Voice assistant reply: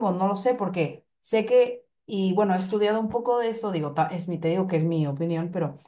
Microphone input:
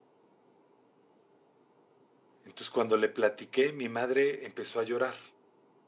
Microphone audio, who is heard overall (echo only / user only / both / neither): user only